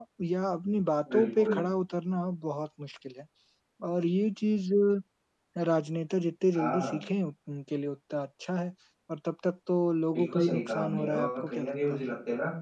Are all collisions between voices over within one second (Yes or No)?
No